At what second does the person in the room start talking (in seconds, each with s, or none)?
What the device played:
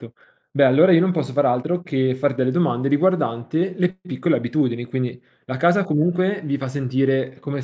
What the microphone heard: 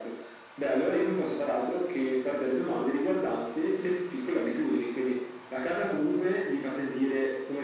none